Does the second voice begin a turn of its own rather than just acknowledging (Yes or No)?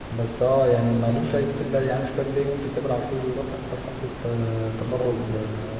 No